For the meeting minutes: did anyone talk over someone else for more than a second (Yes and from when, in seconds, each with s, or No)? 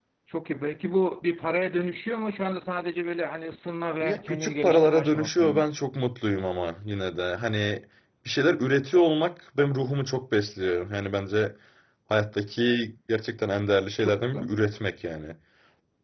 Yes, from 4.0 s